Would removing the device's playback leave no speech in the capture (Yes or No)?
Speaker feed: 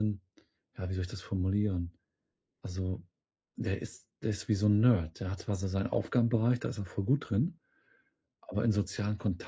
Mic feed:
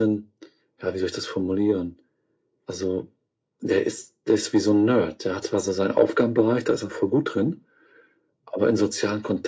Yes